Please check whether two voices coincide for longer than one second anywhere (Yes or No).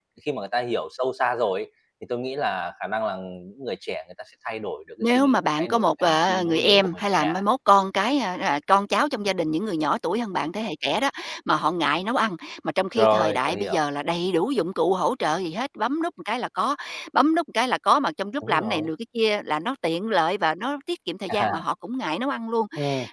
Yes